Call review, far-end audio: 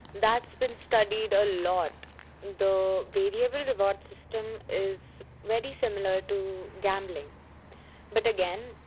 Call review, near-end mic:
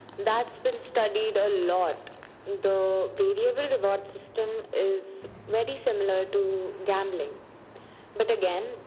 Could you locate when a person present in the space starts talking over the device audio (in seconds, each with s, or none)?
none